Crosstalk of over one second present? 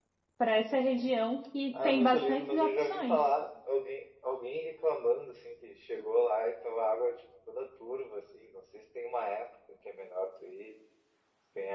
Yes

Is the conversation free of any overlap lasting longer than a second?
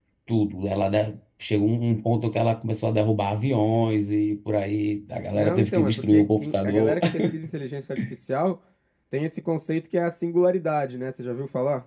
No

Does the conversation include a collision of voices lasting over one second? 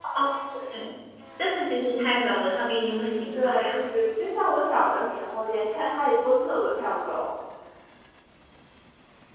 No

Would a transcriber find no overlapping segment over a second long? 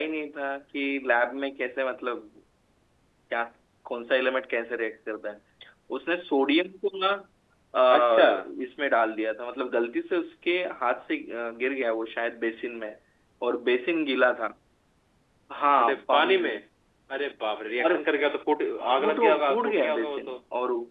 No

